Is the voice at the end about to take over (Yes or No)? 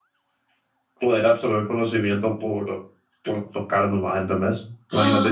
No